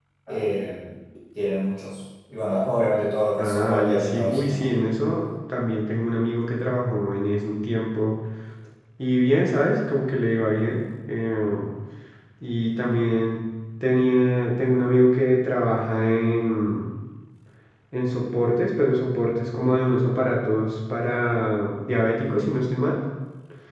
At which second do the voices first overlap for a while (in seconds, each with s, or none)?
3.4 s